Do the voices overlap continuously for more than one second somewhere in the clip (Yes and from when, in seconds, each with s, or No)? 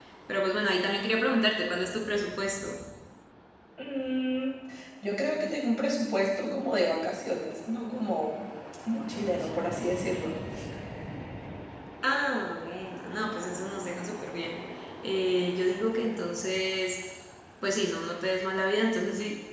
No